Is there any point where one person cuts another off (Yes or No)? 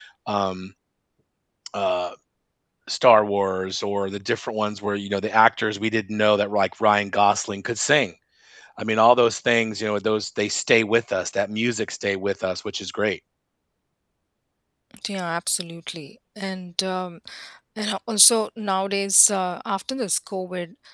No